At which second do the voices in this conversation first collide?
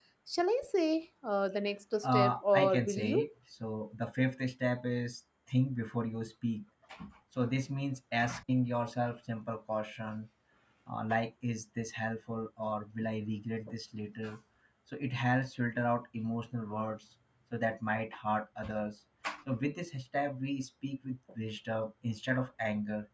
2.0 s

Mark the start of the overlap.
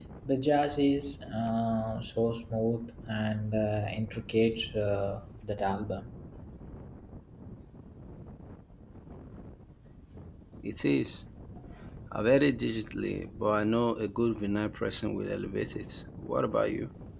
none

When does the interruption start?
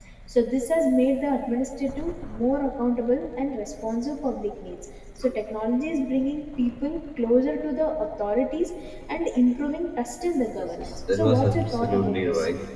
10.6 s

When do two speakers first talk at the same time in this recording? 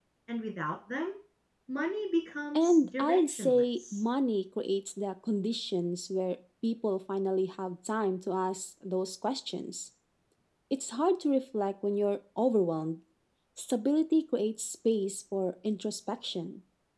2.5 s

